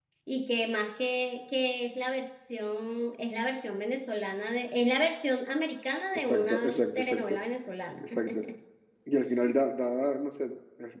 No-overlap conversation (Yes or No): No